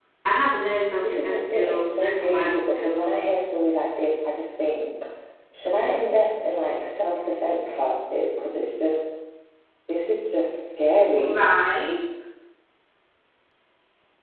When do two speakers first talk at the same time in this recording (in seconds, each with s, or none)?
1.0 s